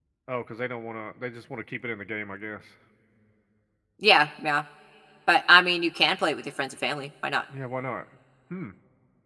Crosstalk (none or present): none